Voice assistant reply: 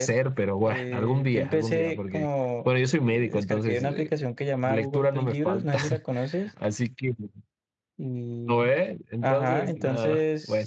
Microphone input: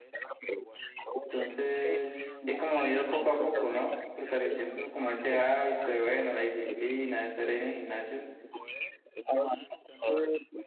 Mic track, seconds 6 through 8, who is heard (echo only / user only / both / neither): both